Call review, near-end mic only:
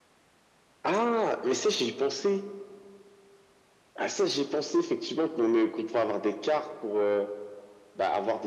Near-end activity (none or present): none